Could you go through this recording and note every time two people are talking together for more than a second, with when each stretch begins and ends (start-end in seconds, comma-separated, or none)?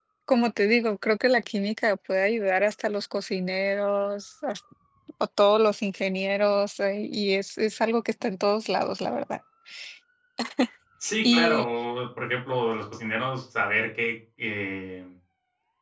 none